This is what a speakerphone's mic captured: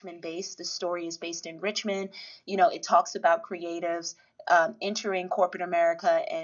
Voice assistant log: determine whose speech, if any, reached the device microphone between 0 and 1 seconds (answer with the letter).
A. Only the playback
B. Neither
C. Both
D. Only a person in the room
D